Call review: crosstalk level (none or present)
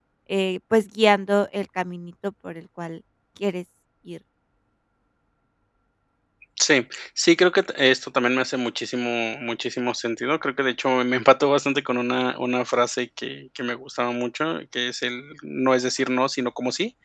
none